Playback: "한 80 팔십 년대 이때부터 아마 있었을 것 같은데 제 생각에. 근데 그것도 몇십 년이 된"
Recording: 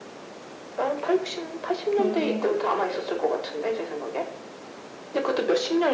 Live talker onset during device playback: 2 s

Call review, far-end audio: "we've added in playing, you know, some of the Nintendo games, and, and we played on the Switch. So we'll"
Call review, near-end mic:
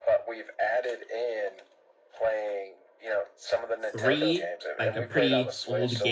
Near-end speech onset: 4 s

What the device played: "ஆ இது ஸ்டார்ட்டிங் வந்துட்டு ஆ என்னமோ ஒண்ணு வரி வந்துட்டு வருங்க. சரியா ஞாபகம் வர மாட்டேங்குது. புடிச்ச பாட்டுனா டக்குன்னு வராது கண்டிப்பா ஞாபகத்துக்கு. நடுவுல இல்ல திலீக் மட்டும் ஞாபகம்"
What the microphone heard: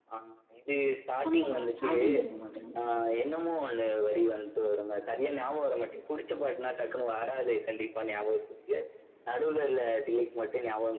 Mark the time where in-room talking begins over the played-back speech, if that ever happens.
1 s

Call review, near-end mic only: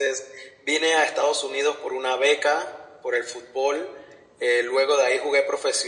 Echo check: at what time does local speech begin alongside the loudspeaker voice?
none

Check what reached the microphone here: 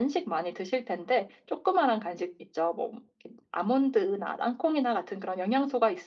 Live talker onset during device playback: none

